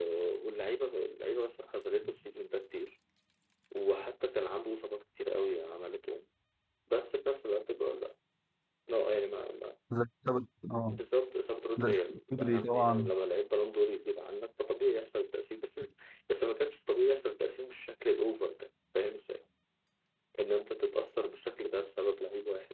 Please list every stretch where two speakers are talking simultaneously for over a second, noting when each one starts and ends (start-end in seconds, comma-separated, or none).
11.8-13.1